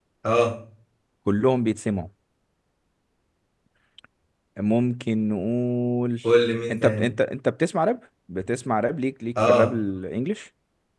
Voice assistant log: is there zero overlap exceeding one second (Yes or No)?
Yes